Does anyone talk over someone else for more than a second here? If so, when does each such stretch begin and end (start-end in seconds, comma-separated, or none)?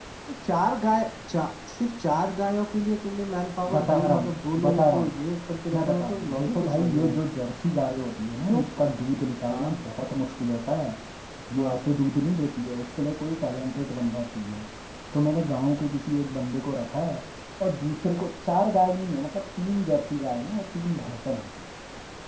3.7-5.1, 5.7-7.2